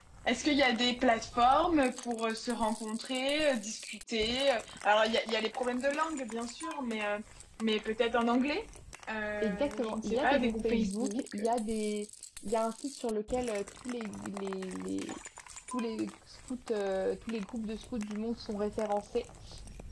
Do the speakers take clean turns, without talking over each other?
No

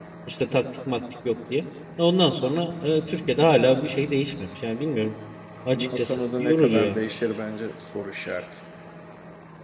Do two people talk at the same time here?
Yes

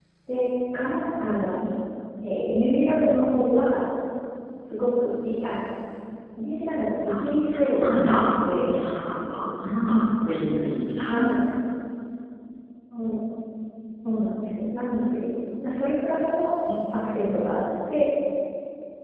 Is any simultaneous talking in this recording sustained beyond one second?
Yes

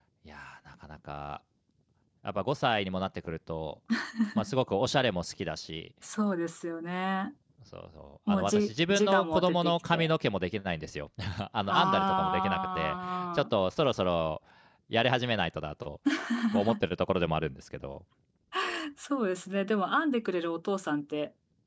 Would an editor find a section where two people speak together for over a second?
Yes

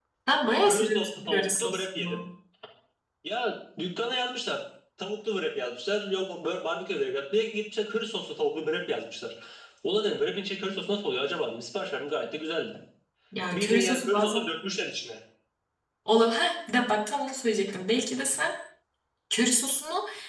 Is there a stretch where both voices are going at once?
Yes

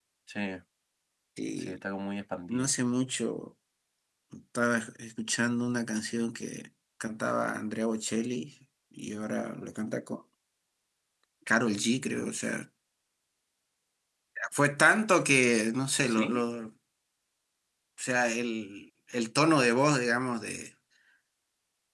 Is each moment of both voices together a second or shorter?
Yes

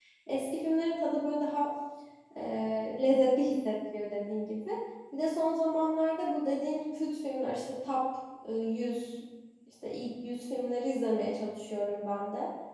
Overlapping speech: No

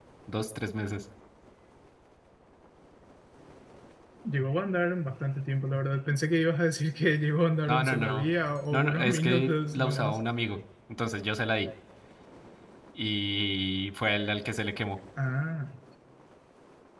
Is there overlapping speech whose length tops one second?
Yes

